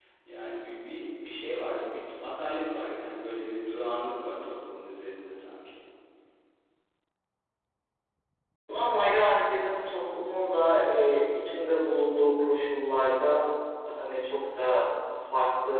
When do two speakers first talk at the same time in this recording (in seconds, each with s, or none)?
none